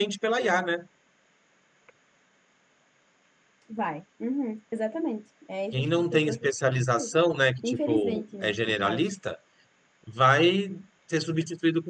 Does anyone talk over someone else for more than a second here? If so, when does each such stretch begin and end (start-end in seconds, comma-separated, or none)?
5.7-7.1, 7.6-9.0